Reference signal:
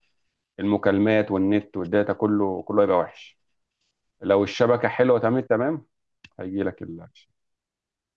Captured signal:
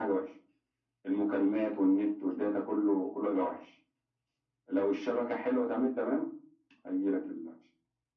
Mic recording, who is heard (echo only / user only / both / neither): echo only